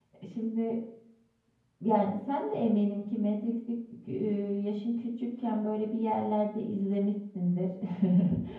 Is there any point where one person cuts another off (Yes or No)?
No